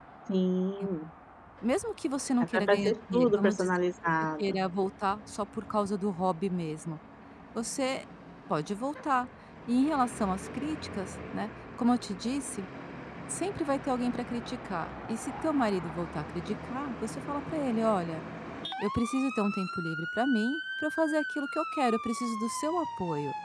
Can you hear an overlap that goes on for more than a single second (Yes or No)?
Yes